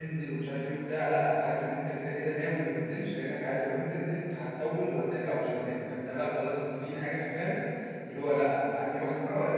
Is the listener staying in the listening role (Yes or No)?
Yes